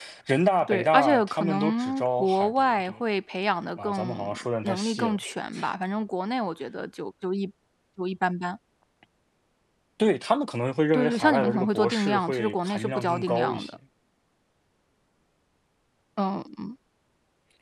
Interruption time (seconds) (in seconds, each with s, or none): 0.7 s